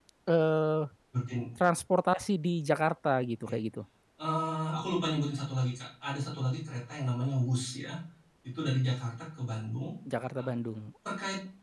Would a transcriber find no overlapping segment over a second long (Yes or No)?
Yes